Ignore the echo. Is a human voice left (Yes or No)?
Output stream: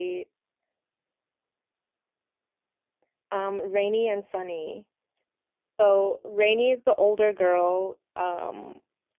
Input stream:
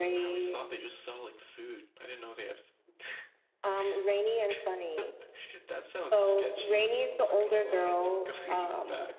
Yes